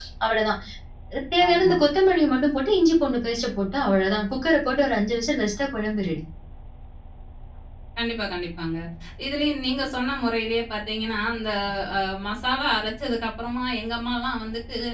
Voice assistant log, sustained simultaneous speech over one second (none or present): none